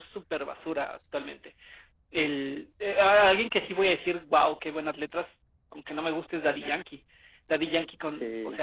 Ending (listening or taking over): listening